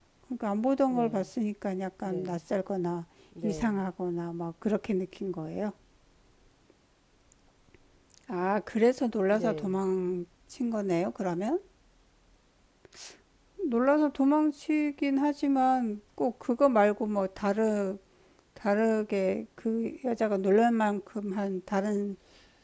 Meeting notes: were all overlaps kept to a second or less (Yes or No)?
Yes